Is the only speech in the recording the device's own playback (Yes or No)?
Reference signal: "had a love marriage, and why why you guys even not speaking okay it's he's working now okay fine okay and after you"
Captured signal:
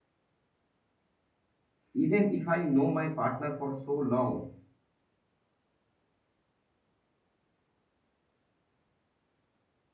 No